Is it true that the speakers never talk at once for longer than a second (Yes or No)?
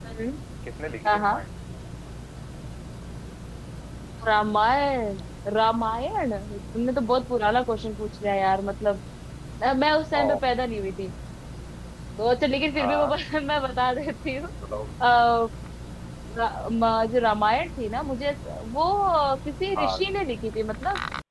Yes